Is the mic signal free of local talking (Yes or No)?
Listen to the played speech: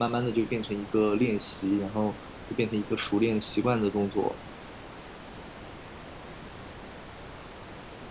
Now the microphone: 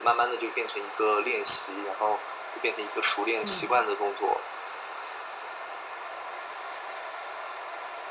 No